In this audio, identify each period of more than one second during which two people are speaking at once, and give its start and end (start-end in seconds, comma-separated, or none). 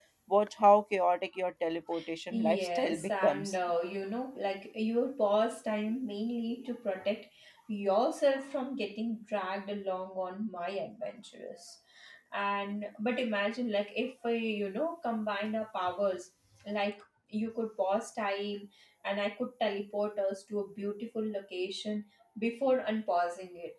2.3-3.6